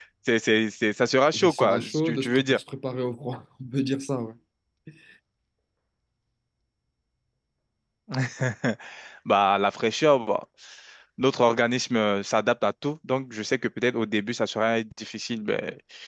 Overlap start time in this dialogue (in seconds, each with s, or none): 1.3 s